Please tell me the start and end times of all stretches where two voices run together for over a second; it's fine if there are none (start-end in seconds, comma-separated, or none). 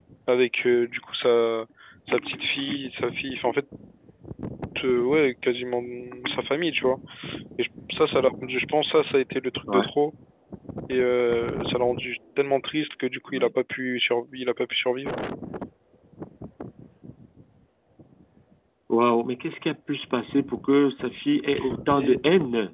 none